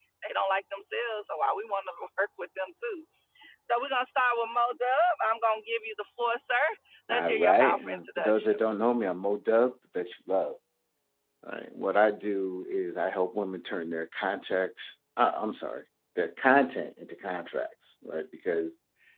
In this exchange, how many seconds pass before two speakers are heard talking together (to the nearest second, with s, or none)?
7 s